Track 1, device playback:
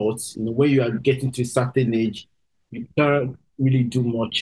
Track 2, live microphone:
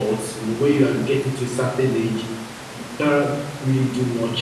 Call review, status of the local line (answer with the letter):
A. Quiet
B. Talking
A